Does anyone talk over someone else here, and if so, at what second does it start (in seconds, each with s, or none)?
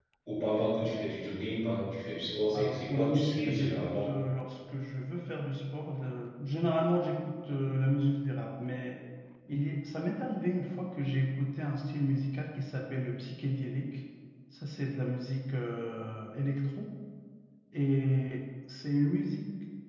2.5 s